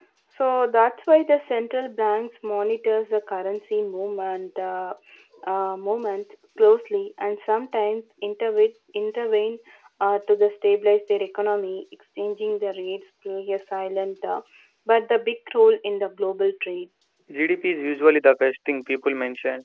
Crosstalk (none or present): none